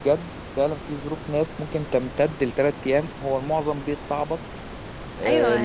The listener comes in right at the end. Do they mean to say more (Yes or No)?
Yes